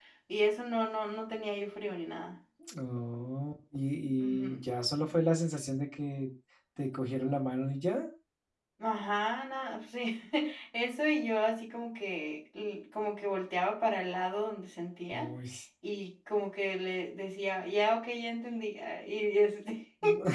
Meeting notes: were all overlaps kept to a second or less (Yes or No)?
Yes